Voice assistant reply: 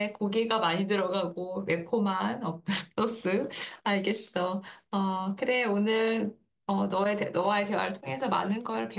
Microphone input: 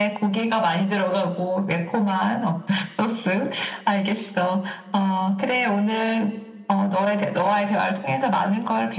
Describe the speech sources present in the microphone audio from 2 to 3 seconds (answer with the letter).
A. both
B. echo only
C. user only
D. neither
B